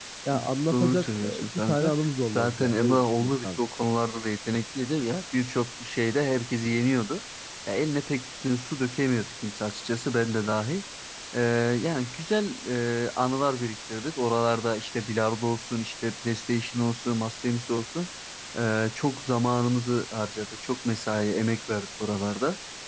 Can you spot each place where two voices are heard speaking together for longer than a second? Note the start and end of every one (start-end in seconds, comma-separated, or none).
0.7-1.9, 2.4-3.6